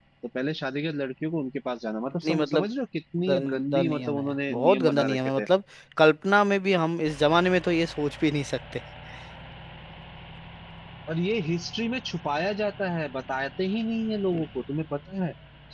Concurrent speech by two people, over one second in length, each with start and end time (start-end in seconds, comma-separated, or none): 3.3-5.5